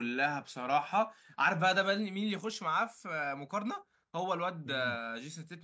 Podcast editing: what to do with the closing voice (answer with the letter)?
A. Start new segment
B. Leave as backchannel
B